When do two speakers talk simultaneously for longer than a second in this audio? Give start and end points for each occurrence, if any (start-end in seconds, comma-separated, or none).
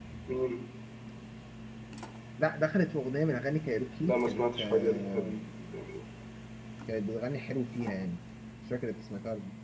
4.0-5.4